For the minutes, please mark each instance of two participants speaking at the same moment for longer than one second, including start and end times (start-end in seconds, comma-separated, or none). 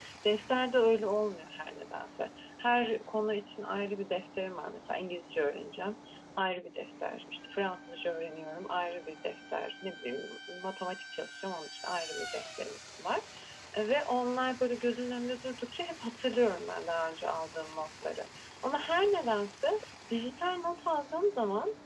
none